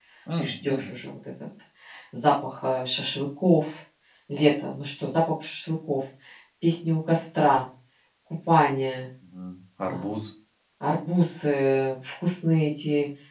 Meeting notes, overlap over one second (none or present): none